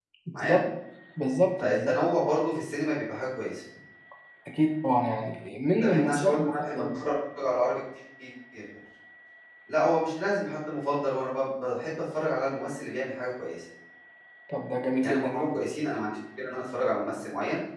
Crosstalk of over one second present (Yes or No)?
Yes